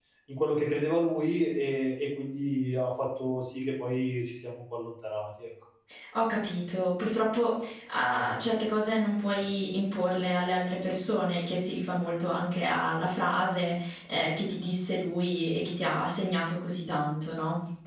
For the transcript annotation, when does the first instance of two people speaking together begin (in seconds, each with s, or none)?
none